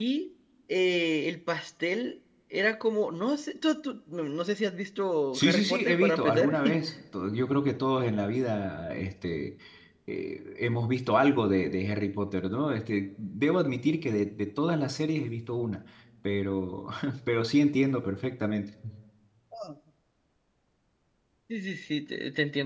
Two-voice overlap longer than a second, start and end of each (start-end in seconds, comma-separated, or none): 5.3-6.7